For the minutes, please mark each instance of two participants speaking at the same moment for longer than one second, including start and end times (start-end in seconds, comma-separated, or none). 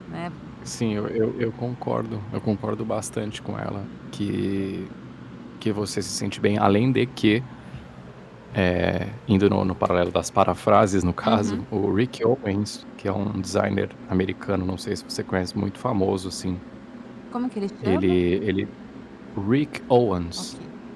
none